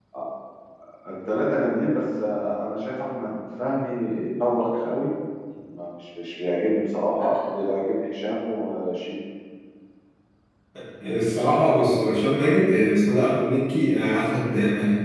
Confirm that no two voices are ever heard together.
Yes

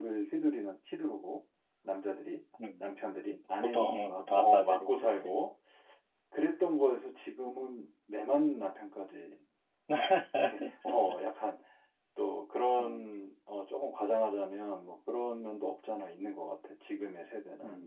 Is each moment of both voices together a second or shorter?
No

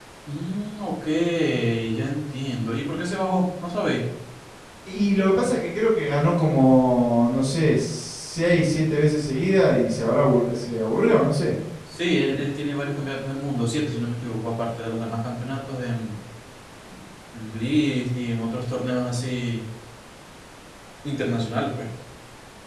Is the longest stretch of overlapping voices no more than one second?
Yes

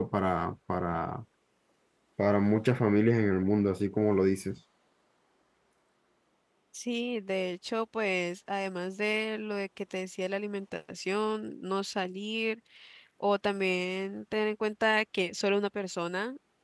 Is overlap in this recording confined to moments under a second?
Yes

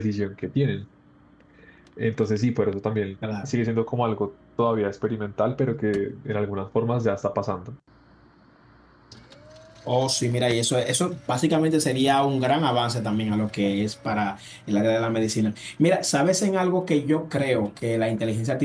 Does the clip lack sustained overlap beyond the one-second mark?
Yes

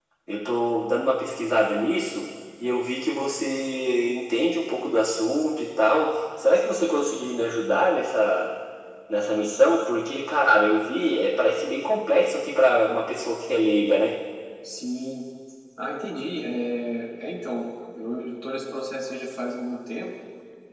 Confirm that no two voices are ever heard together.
Yes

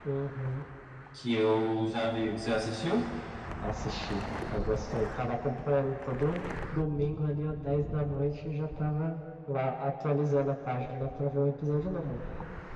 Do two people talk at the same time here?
No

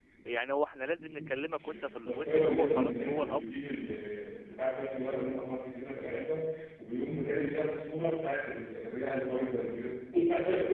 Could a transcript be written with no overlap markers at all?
No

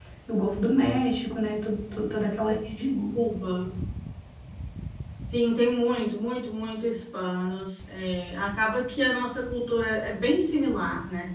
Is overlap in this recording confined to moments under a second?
Yes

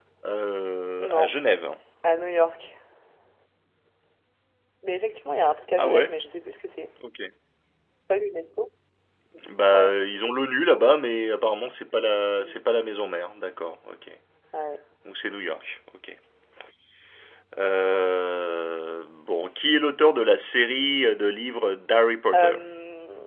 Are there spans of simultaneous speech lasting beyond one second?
No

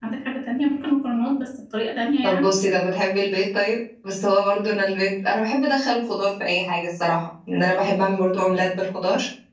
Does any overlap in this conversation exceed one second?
No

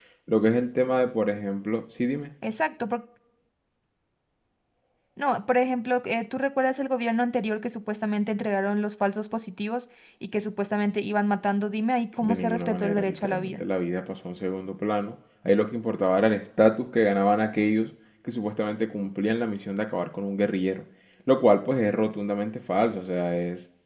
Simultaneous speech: Yes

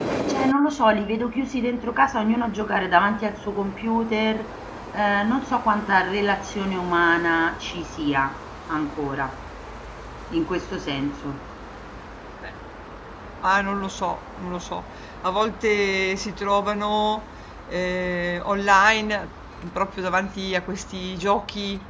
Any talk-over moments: No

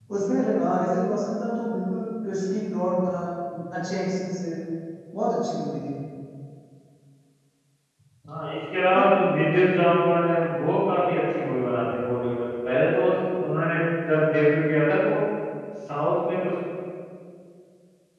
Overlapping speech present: No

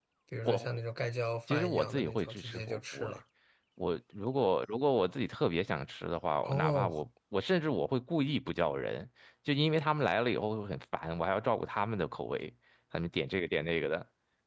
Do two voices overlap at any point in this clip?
Yes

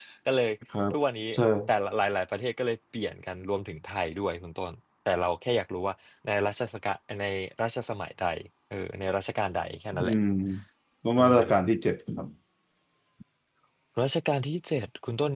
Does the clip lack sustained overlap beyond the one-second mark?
Yes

